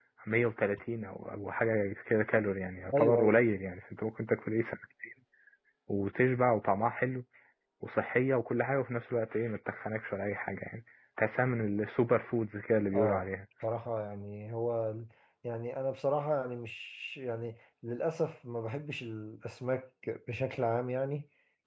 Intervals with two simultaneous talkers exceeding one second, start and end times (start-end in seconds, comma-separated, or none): none